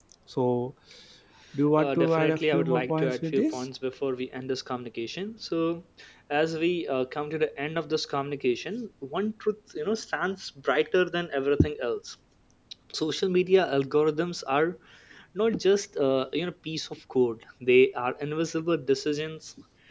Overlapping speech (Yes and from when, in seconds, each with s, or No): Yes, from 1.8 s